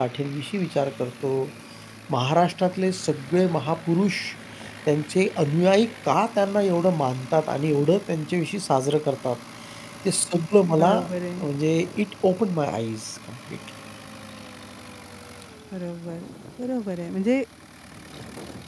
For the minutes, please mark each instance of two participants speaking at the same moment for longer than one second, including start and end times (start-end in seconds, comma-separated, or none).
none